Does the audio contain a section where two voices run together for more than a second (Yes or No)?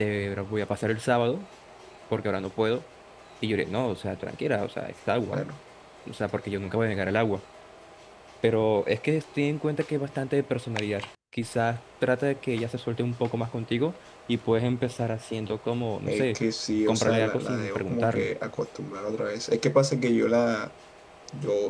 Yes